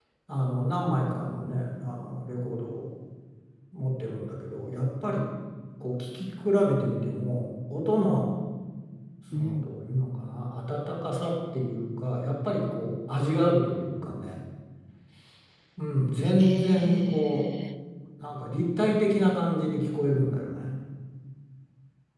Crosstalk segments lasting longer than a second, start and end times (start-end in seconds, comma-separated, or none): 16.2-17.5